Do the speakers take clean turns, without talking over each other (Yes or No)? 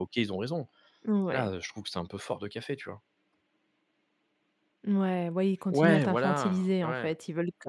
No